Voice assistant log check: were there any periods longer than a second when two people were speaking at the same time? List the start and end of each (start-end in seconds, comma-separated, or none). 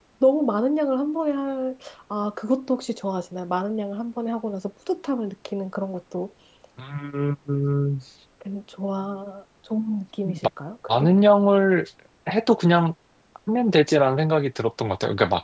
none